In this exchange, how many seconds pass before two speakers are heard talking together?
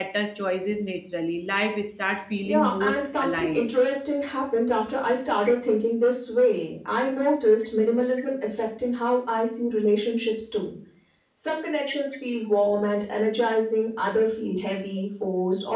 2 s

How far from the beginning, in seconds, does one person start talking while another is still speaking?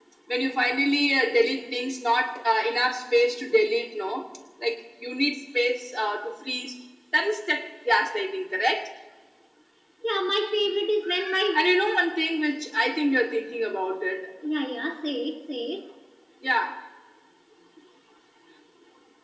none

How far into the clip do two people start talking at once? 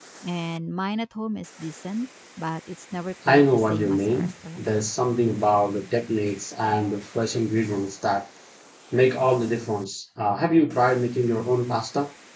3 s

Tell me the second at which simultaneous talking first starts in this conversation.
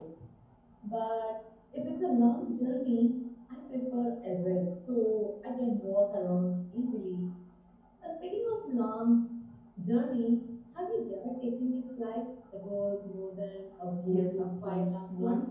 14 s

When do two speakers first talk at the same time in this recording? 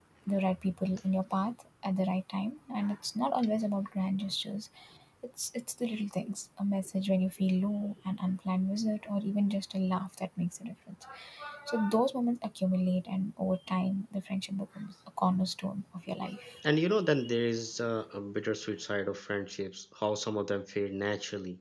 none

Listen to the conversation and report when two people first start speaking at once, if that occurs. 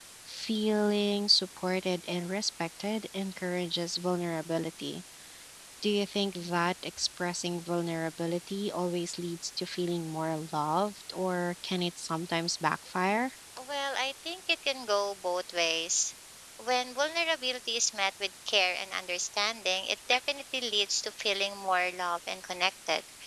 none

